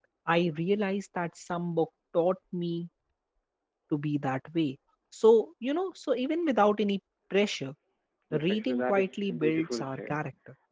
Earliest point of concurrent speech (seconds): 8.3 s

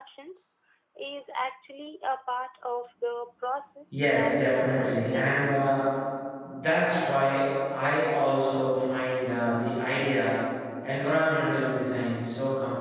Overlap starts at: 3.9 s

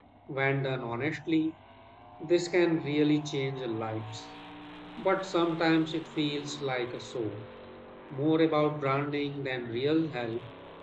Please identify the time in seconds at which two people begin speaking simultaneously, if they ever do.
none

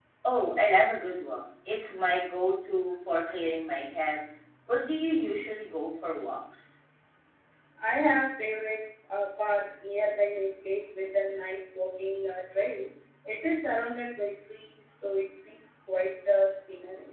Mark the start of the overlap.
none

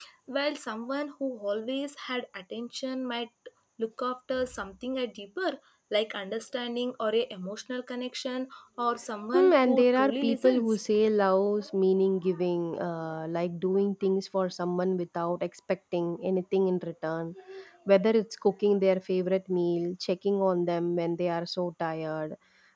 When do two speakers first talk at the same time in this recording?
9.3 s

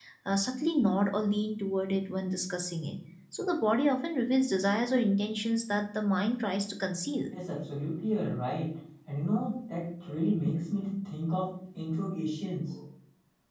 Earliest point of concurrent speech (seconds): none

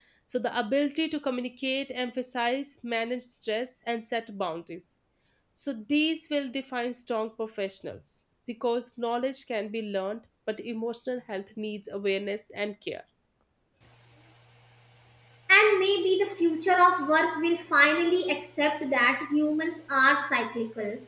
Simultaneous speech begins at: none

